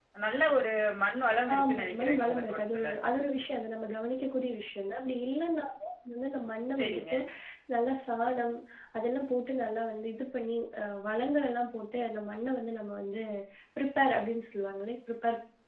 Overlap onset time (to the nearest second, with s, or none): 2 s